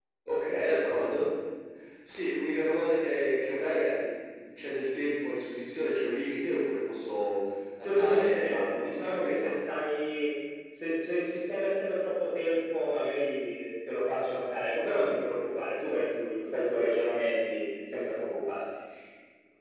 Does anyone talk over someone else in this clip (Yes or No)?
Yes